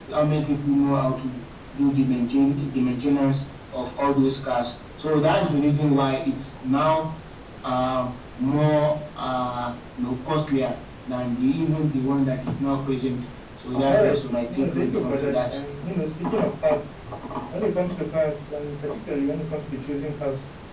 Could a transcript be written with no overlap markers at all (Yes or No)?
No